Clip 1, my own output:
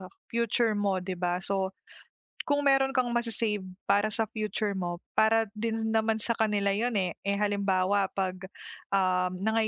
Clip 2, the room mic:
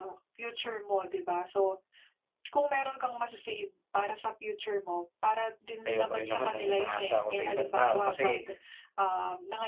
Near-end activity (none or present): present